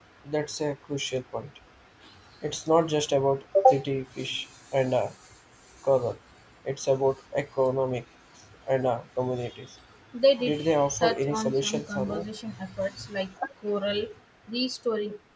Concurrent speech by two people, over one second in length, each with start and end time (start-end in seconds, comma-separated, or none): 11.0-12.2